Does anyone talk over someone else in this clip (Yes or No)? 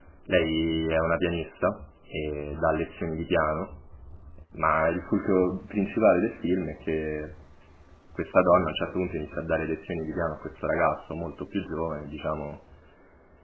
No